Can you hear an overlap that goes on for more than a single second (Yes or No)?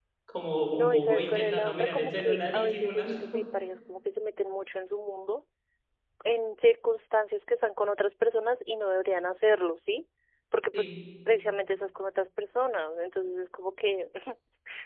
Yes